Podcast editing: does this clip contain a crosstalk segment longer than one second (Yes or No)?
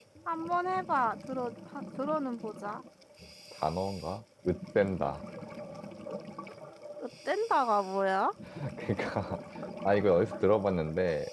No